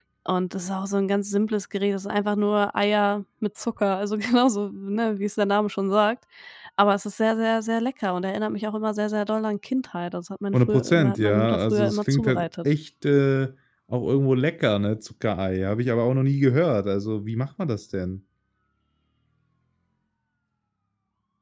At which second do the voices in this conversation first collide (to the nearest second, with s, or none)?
11 s